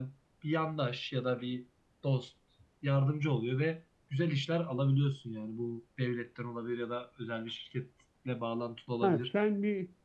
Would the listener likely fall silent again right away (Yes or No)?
No